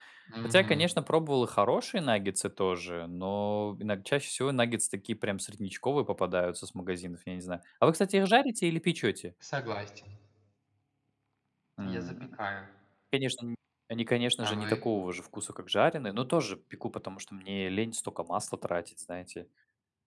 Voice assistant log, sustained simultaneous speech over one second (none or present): none